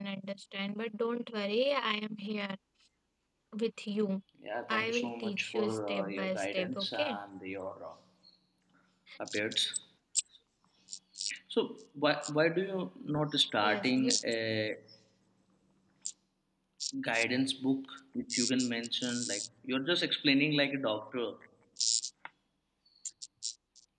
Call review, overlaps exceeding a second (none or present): present